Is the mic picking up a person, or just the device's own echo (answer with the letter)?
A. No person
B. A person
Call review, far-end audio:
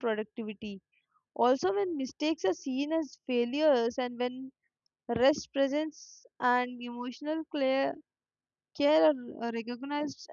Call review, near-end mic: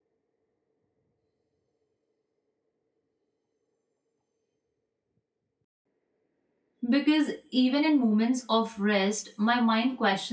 B